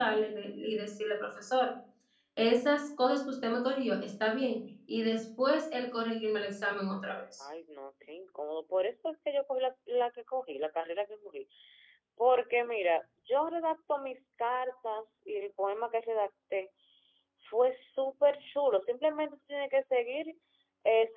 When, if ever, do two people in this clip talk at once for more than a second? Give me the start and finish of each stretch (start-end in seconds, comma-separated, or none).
none